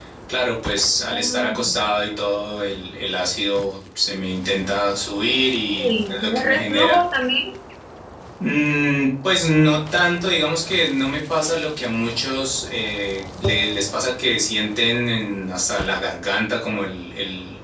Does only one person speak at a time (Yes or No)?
No